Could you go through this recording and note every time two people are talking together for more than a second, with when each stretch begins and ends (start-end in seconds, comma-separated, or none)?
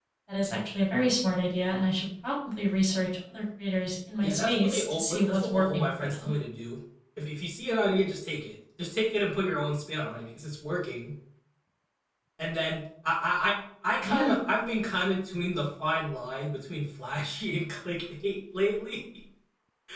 4.2-6.2